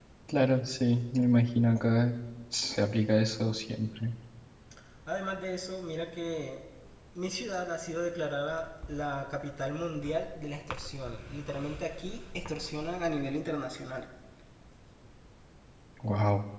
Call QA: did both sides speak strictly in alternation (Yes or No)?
Yes